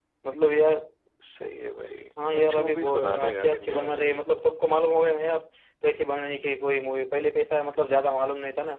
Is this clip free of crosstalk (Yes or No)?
No